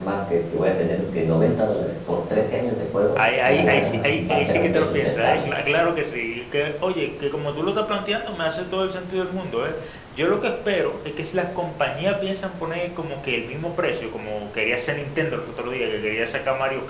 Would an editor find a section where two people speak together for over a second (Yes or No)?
Yes